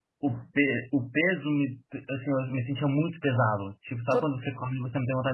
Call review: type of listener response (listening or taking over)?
listening